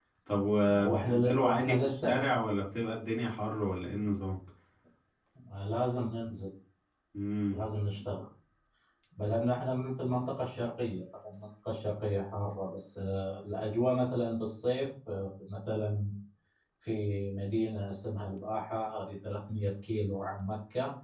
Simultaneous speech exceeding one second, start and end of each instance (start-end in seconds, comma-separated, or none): 0.8-2.4